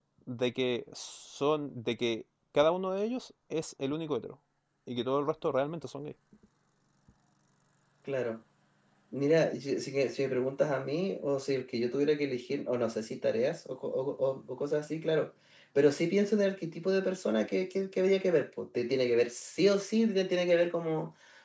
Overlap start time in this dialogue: none

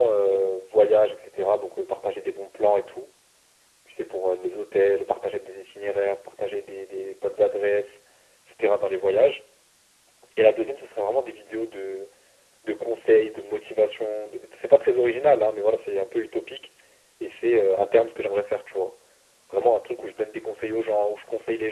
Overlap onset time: none

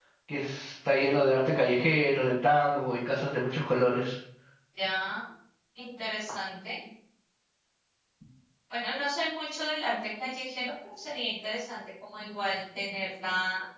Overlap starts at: none

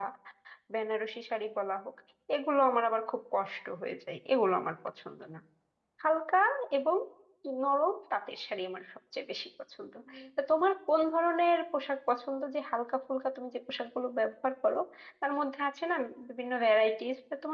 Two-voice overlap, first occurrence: none

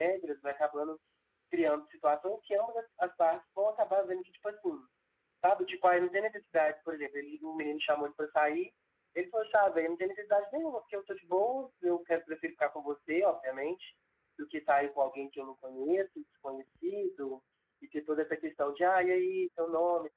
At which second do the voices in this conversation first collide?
none

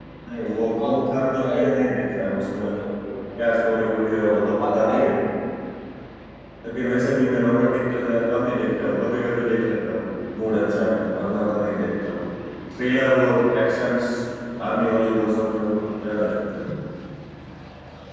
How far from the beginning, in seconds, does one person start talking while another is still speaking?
0.6 s

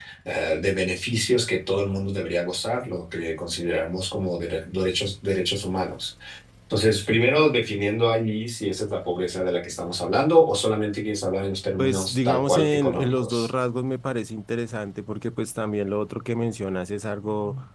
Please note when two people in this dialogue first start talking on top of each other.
11.8 s

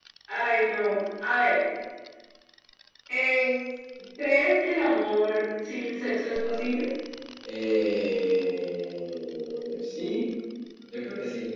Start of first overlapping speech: none

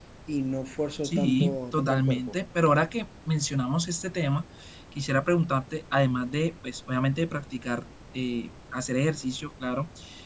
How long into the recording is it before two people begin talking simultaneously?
1.0 s

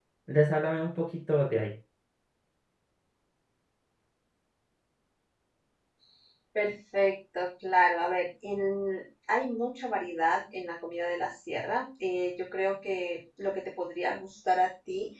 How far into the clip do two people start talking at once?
none

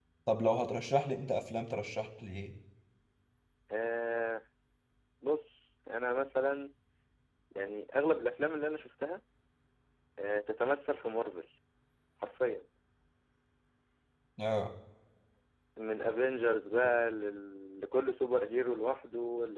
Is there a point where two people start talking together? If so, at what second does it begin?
none

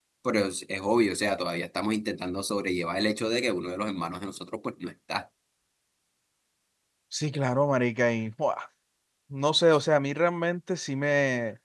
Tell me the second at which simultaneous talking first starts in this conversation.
none

